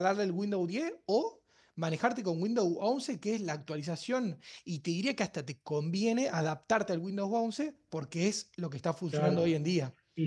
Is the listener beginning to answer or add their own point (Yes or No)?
Yes